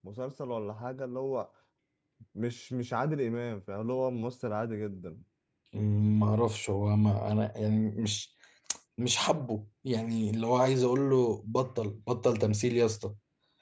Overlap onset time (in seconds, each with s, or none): none